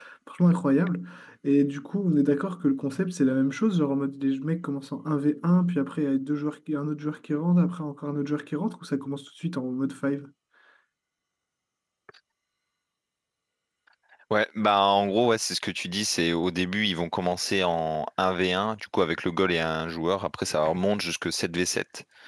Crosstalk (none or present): none